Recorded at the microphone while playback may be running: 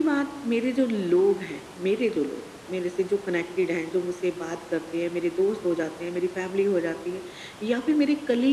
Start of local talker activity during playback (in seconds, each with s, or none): none